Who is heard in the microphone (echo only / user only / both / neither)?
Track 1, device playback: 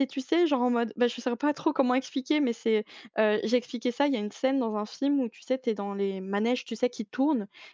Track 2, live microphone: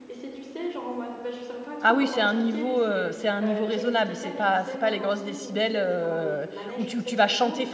both